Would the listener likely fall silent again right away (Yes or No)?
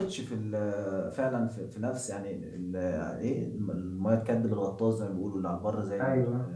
No